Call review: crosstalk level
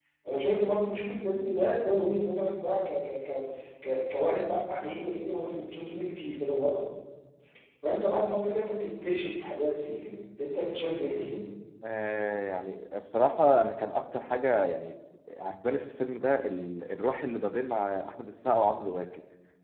none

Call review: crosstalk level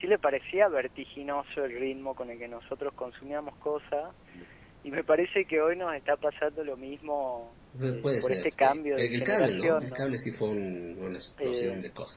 present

